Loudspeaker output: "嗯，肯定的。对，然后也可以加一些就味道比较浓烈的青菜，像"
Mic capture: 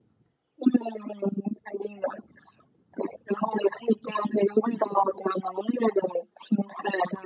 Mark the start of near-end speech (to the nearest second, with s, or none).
none